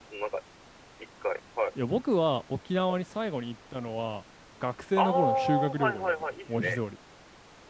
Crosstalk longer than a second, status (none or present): present